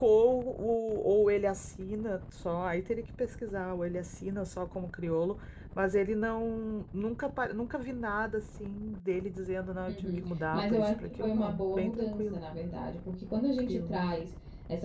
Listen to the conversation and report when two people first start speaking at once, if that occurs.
9.9 s

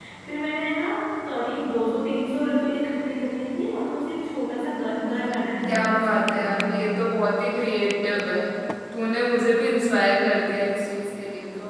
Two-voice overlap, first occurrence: 5.7 s

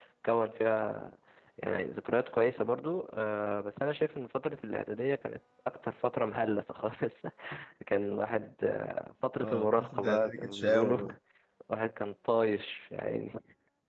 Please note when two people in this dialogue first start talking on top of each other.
9.4 s

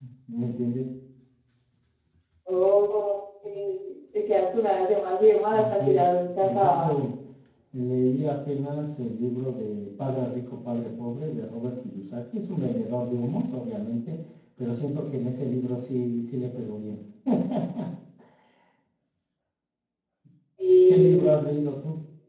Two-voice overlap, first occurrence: 5.6 s

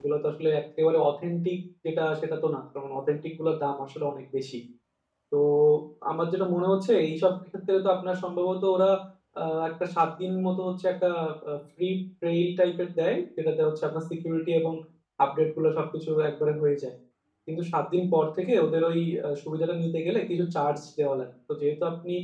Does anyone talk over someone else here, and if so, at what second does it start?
none

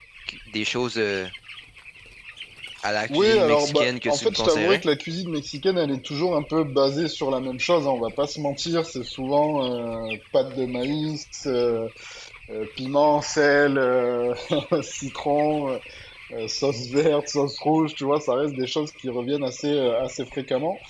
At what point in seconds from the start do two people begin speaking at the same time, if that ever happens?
3.1 s

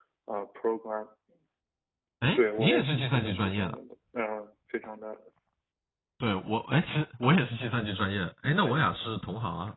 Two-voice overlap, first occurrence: 2.4 s

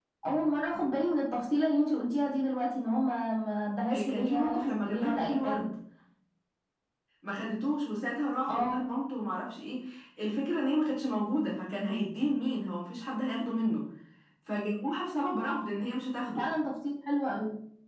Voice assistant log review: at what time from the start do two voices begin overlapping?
3.9 s

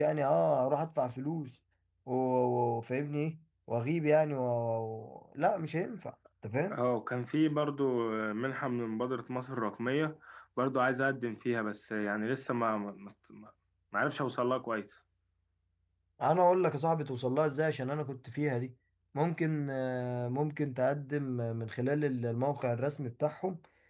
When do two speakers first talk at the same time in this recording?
none

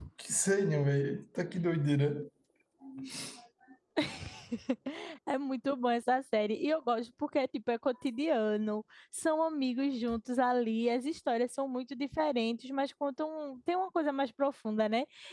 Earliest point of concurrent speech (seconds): none

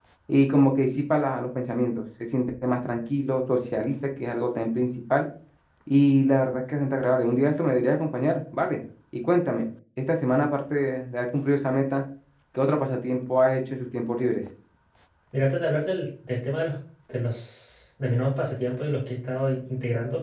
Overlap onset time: none

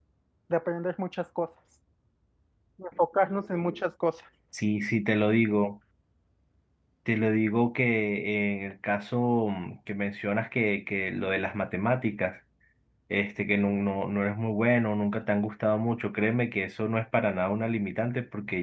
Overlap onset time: none

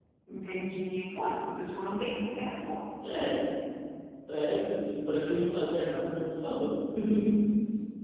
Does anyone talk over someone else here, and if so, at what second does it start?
none

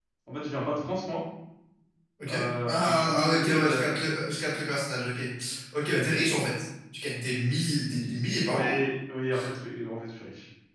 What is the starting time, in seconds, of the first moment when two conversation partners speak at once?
2.3 s

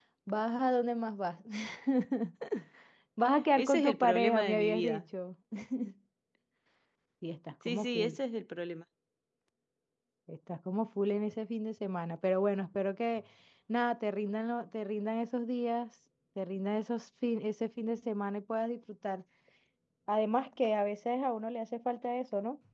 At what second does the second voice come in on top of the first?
3.6 s

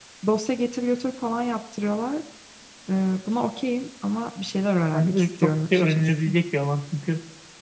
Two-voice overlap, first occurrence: 4.9 s

